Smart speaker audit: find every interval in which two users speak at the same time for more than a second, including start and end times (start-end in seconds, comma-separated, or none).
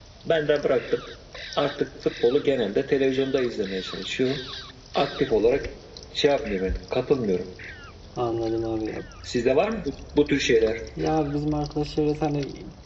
none